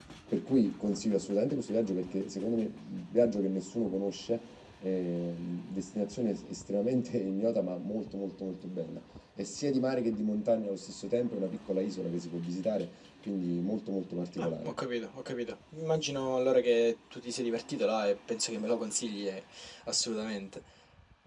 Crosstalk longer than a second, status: none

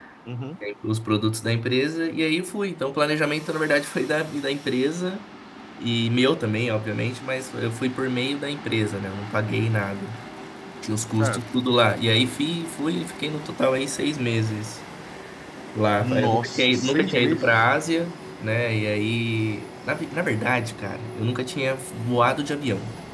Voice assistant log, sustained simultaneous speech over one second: present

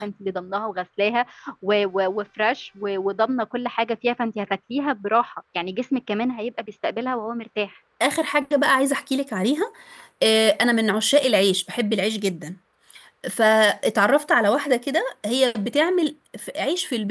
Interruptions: none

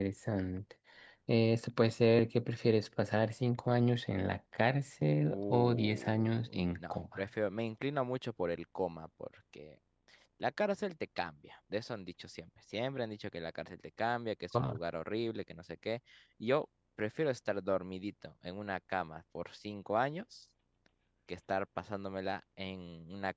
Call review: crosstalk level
present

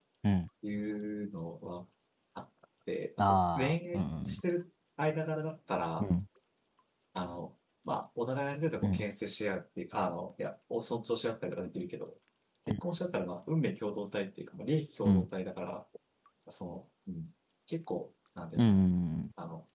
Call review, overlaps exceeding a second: present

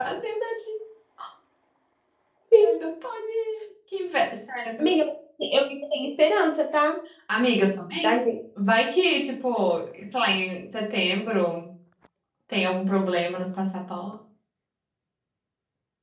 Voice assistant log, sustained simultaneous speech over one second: none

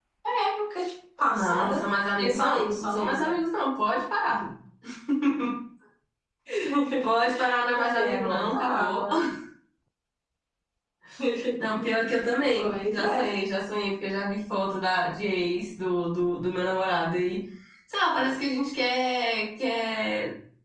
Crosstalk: present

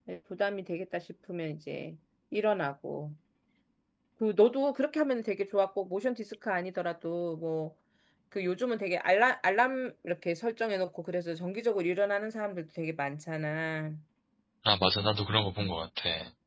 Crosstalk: none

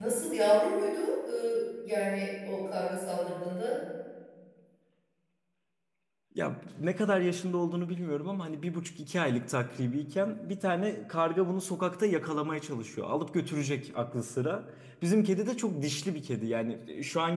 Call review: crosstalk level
none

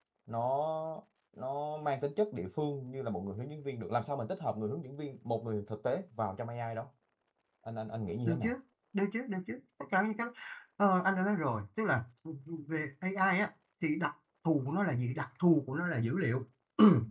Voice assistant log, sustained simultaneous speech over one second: none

